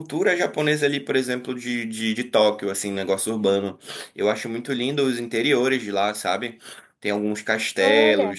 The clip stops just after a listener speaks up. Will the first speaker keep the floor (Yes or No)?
Yes